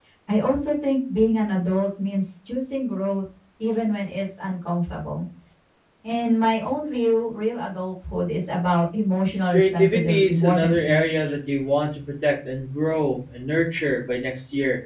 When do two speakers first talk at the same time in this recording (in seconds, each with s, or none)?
9.5 s